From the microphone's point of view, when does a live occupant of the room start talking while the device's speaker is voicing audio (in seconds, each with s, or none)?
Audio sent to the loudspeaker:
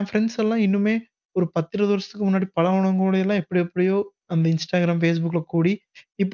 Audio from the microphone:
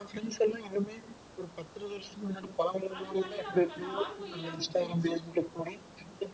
3.0 s